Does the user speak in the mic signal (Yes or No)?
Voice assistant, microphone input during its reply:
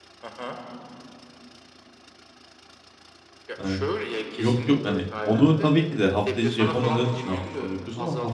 Yes